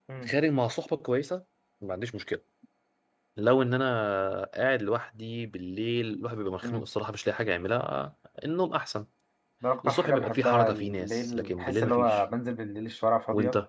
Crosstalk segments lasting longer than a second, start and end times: 9.8-12.2

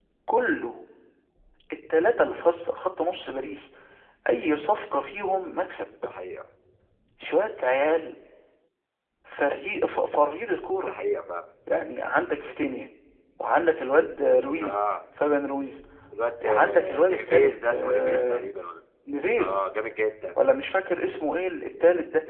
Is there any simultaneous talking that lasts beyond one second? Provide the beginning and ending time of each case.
16.4-18.4

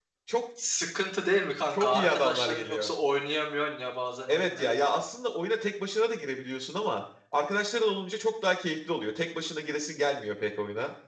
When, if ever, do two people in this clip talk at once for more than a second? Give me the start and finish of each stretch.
1.7-2.9

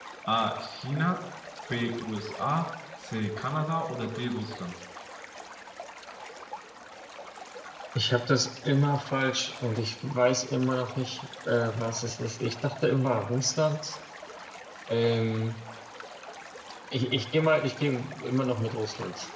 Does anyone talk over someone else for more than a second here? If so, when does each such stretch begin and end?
none

